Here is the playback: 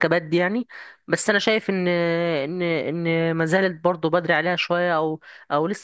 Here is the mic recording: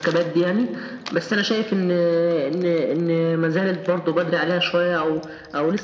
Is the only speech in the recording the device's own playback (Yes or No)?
Yes